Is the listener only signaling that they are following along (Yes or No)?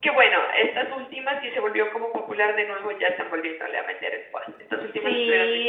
No